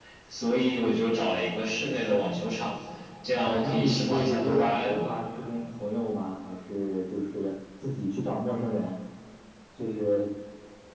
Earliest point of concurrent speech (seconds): 3.4 s

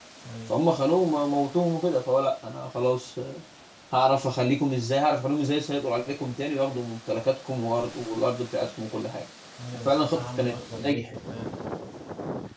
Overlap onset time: 9.8 s

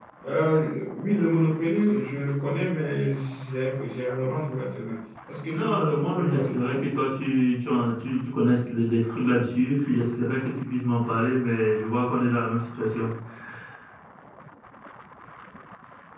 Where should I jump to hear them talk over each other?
5.5 s

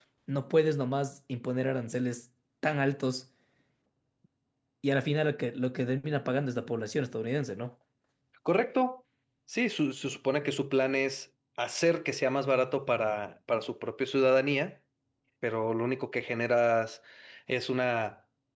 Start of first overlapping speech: none

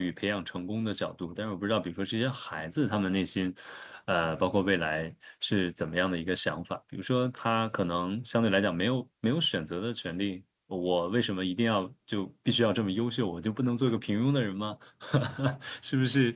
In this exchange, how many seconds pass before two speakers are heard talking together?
none

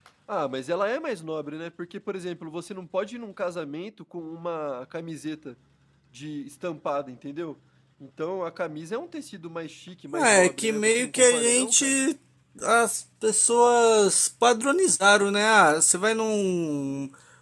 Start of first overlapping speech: 10.1 s

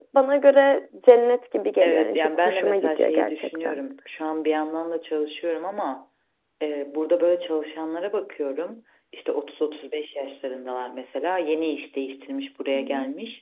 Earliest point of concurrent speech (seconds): 1.8 s

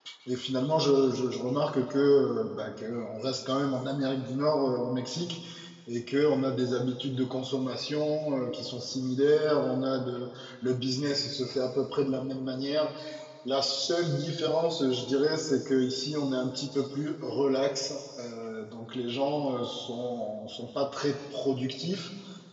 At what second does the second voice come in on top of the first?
none

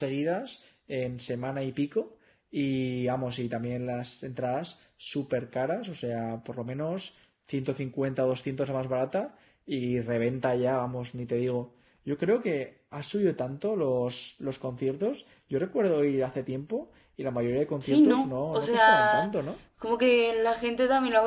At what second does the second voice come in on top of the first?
17.8 s

